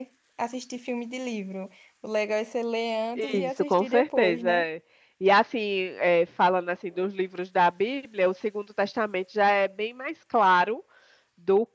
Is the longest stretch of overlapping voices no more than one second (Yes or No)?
No